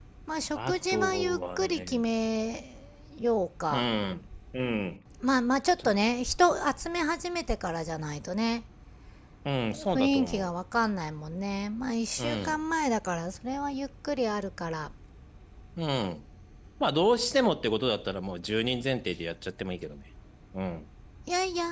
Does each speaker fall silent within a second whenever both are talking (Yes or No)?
No